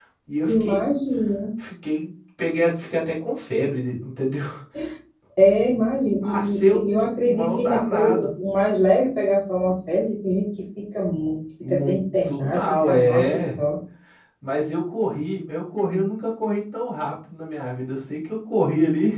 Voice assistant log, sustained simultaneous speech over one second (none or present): present